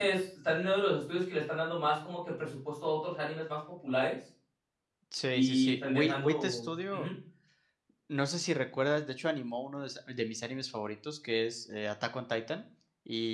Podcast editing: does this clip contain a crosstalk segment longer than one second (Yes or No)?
Yes